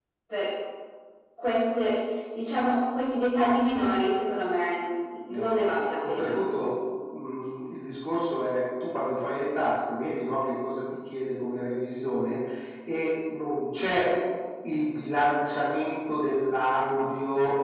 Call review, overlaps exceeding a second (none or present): none